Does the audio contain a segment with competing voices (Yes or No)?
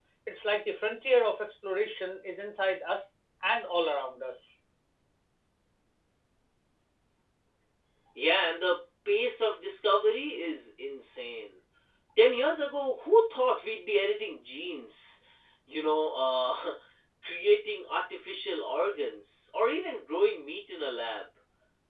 No